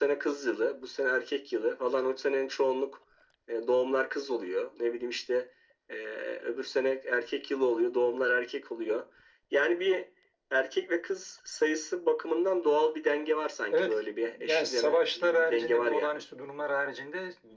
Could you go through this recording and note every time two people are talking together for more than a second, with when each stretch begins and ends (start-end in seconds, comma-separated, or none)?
14.4-16.1